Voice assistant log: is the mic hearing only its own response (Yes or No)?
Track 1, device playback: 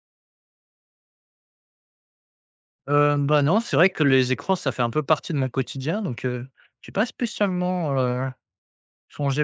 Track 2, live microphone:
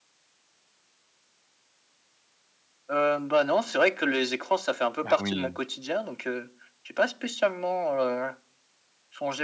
No